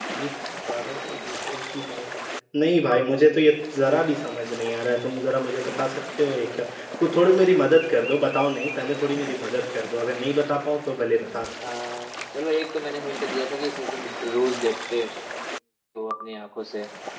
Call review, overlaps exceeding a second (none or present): none